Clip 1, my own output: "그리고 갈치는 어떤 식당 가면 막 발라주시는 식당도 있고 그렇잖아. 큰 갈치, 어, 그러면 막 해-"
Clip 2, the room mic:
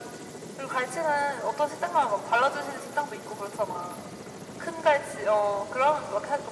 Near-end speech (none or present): none